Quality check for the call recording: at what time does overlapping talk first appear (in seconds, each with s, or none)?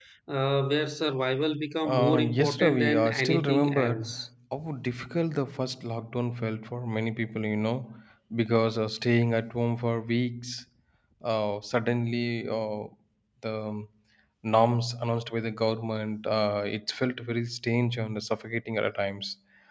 1.9 s